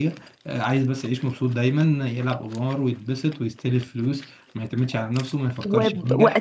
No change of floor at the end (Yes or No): No